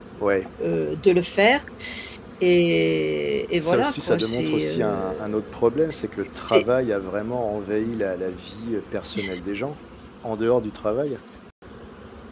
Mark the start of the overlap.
3.6 s

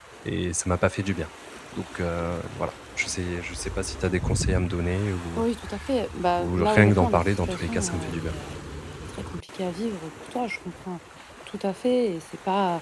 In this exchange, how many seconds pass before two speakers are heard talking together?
6.4 s

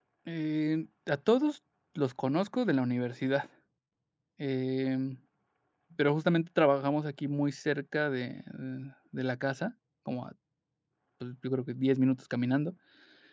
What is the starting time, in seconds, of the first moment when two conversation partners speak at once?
none

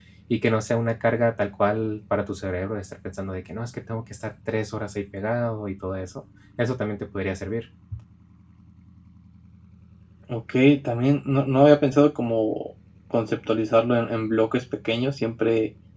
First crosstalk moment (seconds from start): none

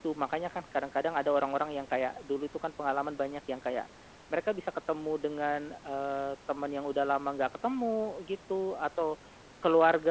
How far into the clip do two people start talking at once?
none

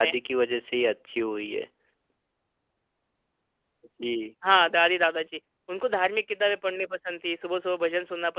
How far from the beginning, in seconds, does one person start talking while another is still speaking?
none

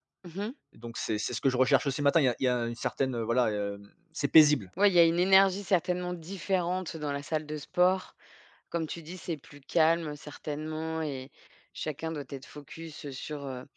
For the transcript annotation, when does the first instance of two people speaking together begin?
none

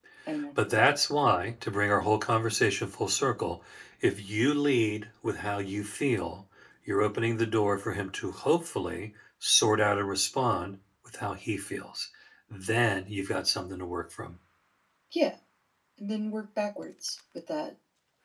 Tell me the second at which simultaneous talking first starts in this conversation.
none

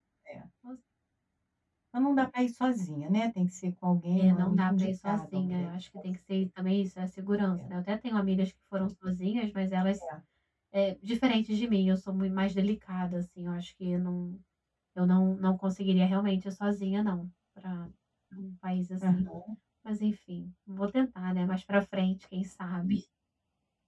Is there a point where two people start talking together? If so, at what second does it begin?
4.2 s

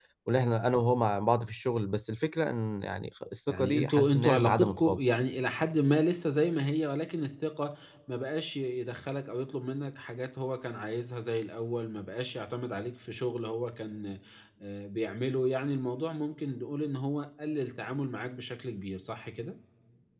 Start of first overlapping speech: 3.5 s

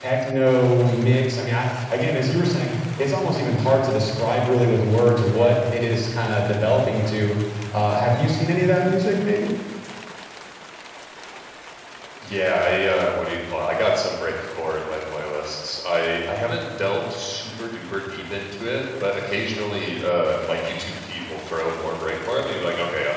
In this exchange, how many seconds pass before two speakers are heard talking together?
none

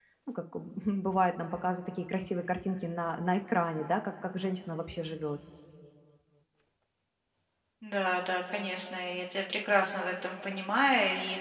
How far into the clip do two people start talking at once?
none

